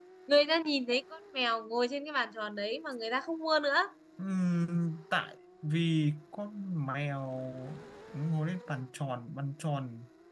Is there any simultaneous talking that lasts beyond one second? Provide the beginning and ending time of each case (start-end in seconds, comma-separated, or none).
none